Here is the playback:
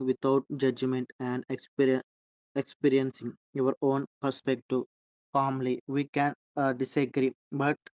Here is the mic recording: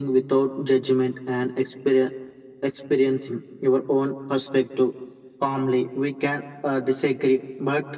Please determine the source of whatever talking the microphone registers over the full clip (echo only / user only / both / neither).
echo only